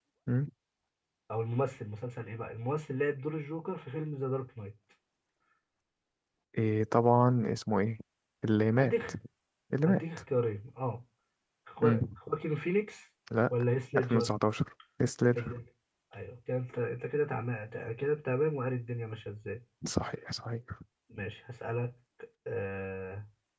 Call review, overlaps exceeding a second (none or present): none